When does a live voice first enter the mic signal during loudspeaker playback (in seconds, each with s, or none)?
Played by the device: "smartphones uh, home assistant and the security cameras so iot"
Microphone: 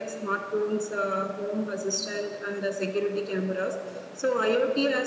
none